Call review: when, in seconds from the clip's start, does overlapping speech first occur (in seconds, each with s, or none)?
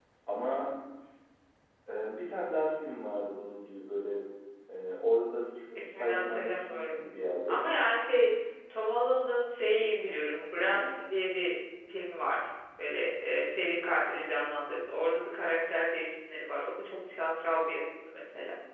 5.8 s